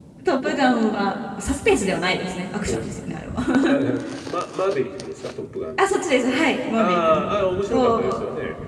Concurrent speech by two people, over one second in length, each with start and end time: 6.8-8.2

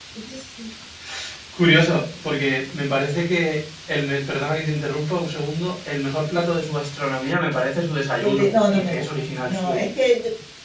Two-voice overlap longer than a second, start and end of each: 8.2-9.8

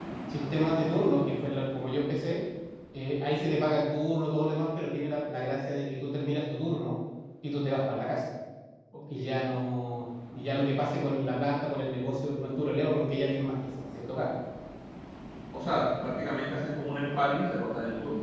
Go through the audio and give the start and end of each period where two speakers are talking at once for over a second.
none

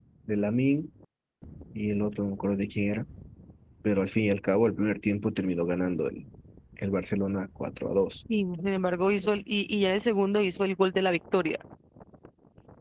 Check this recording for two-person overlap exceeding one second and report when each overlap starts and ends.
none

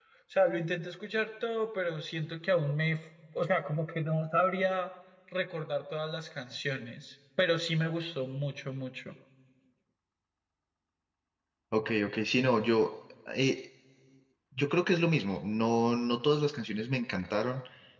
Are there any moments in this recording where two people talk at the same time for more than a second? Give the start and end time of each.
none

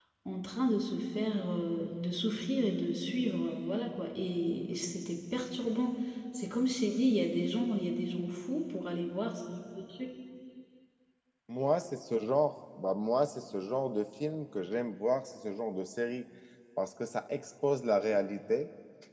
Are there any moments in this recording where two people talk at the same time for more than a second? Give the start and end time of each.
none

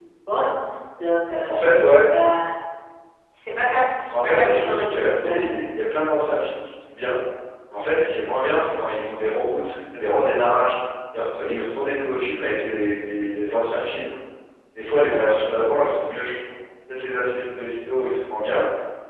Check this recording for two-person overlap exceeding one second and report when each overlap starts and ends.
4.1-5.4

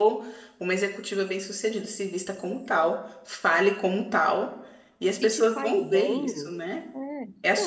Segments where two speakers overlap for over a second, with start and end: 5.1-6.5

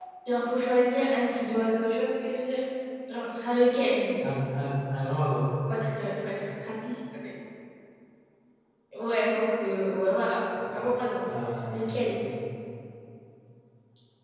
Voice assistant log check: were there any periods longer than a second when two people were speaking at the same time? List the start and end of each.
none

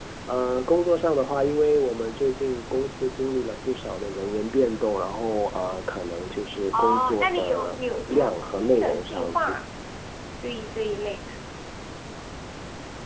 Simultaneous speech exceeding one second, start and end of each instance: 6.7-9.6

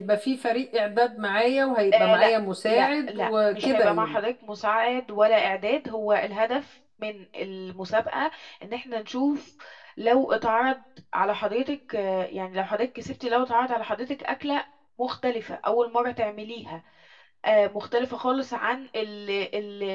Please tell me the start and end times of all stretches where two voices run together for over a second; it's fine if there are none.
2.7-4.2

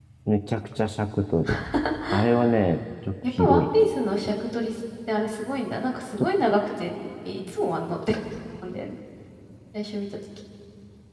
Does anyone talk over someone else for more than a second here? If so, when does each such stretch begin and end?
none

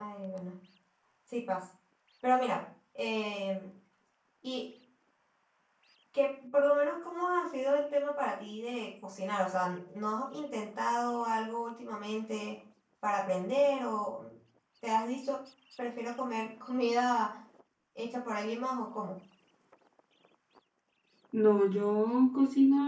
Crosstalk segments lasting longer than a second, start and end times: none

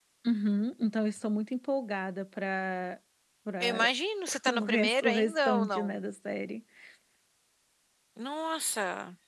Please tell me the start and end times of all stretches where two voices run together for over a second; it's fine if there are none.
4.5-6.0

